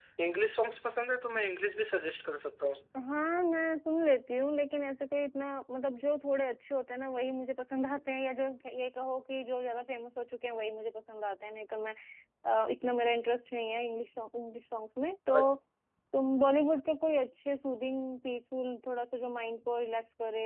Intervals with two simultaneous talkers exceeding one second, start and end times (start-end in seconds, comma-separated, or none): none